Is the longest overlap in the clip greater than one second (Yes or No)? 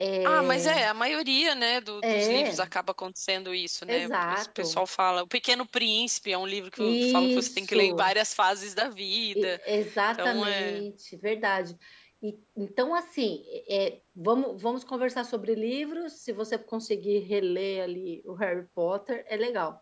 Yes